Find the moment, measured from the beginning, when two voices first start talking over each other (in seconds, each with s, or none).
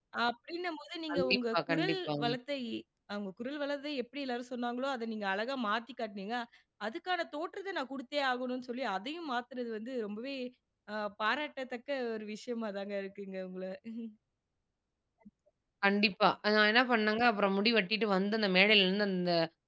1.1 s